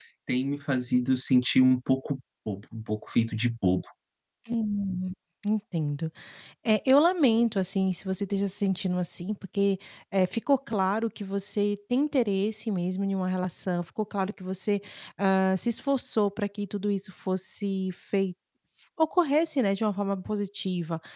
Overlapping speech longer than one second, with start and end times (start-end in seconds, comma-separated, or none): none